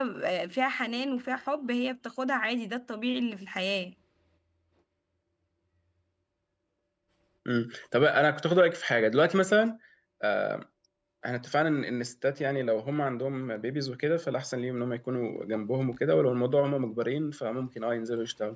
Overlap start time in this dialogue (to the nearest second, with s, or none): none